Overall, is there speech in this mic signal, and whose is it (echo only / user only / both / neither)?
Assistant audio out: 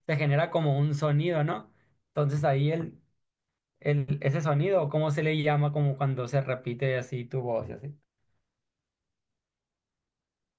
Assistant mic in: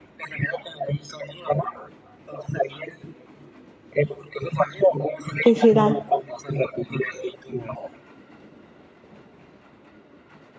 both